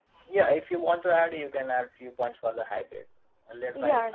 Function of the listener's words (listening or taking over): taking over